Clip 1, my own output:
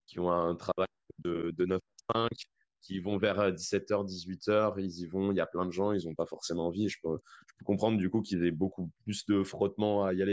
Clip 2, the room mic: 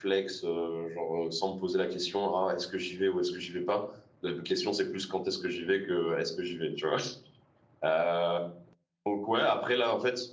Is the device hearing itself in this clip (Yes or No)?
No